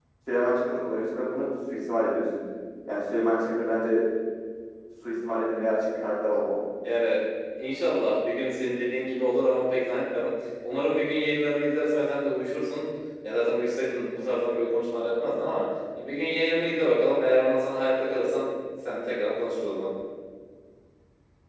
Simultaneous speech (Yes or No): No